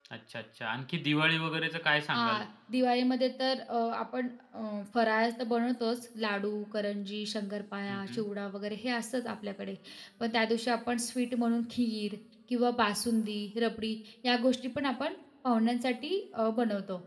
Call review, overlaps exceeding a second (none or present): none